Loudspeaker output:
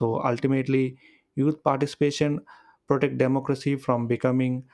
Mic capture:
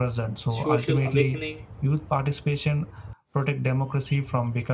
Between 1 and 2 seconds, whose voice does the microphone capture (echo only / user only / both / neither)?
both